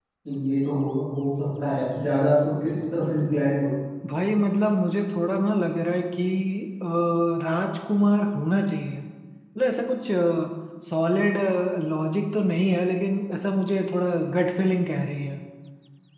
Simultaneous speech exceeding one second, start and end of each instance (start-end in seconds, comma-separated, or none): none